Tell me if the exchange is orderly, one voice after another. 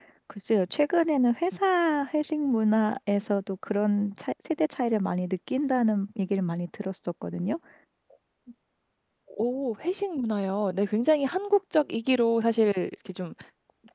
Yes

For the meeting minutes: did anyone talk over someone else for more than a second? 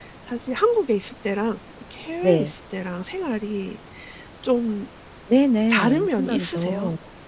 Yes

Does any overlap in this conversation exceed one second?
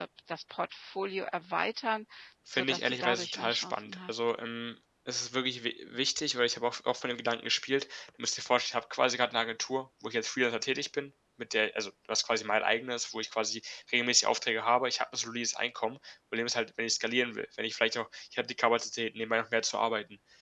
Yes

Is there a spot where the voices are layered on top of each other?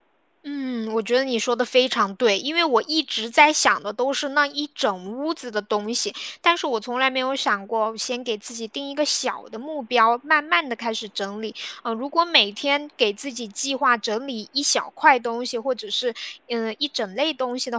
No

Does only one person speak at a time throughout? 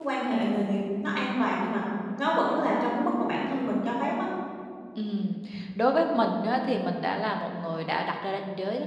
Yes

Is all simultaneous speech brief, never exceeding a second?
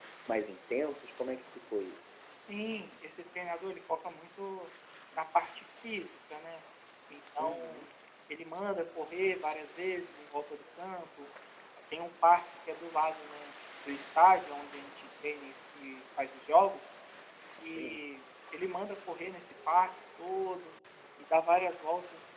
Yes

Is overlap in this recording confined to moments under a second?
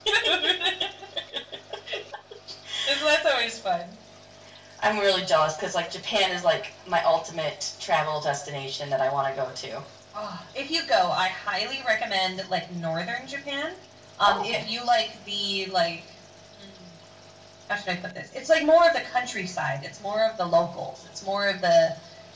Yes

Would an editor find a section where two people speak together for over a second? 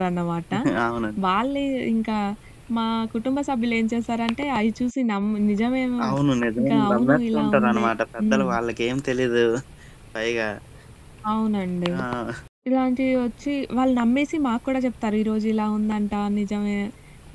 Yes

